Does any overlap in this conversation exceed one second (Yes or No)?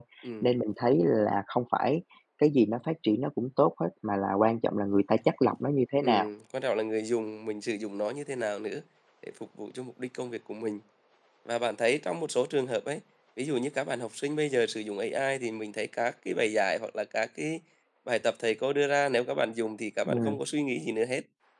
No